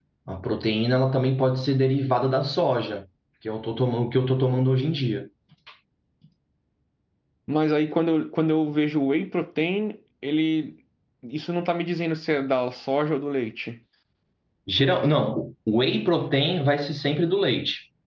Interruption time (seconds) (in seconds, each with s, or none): none